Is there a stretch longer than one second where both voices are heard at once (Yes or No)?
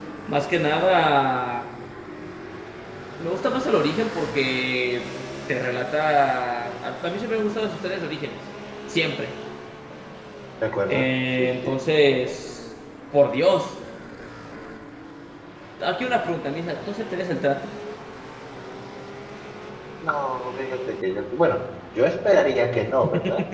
Yes